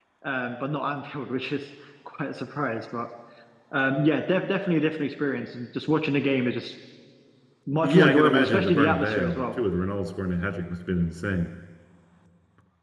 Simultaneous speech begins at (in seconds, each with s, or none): 7.8 s